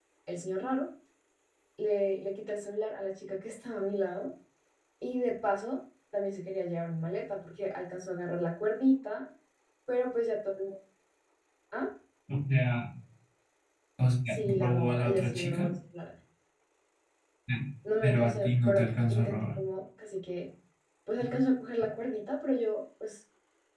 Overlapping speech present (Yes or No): Yes